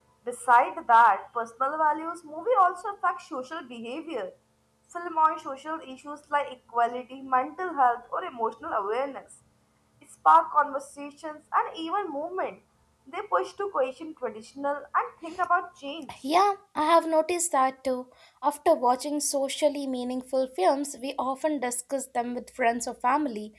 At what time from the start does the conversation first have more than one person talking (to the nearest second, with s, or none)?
none